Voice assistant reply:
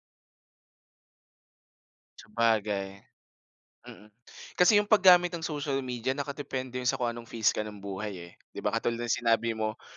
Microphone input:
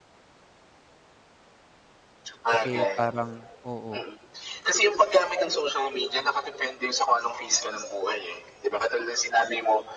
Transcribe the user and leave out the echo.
kasi parang oo.

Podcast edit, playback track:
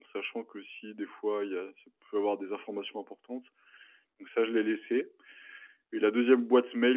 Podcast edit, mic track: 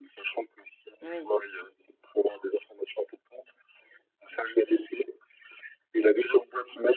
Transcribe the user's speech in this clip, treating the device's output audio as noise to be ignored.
Oui.

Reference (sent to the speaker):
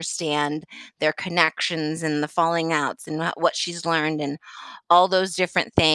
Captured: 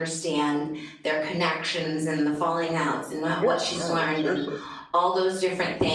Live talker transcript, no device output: Yeah, I know, seriously.

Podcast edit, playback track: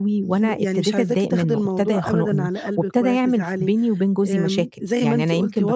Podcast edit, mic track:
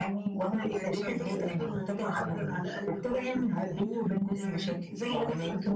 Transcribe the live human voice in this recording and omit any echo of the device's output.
none

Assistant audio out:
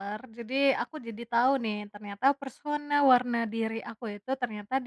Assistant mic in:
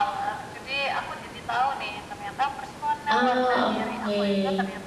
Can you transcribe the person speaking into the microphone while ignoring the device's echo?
Ah, oke.

